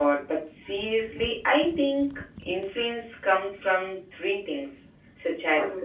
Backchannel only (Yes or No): Yes